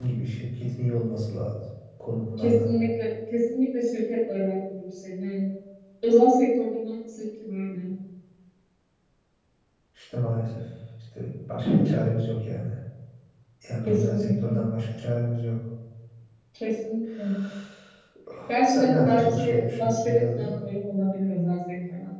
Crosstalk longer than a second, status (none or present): present